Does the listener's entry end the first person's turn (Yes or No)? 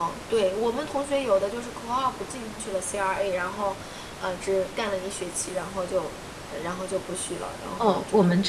Yes